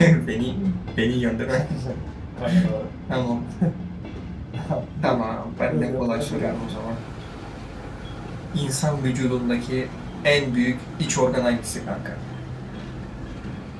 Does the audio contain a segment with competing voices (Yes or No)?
Yes